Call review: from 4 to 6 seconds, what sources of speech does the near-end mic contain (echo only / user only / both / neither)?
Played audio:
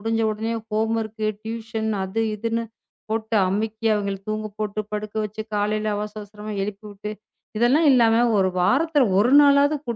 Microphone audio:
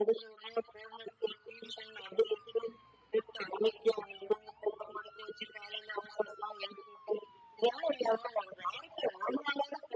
echo only